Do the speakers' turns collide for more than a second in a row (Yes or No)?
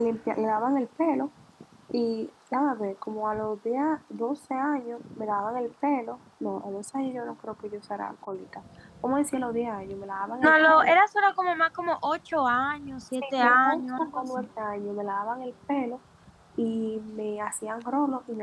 Yes